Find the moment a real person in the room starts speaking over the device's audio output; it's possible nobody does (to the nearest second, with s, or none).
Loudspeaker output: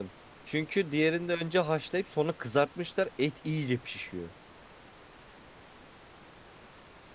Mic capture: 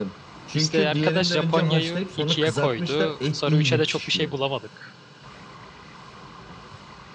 1 s